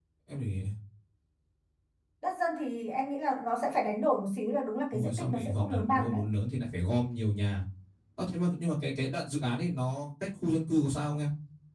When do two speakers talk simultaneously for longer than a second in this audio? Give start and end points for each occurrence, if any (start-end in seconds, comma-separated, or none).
4.9-6.2